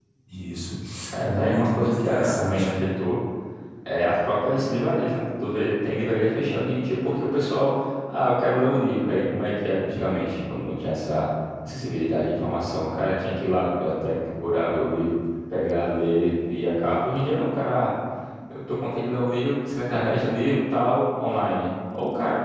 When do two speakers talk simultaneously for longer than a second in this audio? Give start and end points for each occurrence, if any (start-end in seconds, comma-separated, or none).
1.2-2.7